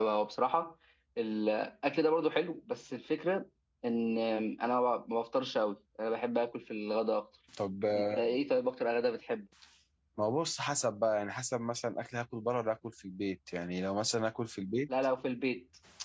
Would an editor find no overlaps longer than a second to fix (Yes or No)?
Yes